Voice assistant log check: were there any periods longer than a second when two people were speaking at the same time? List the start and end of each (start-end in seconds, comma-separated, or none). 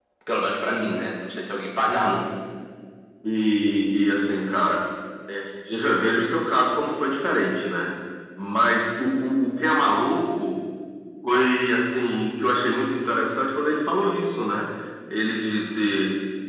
none